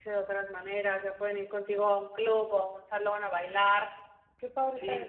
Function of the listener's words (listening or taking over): taking over